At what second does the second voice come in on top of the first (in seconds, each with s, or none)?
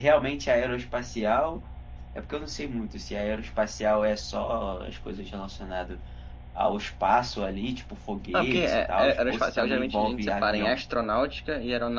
8.3 s